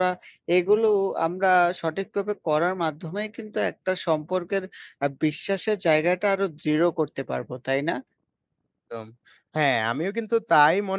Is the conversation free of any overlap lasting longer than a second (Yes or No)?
Yes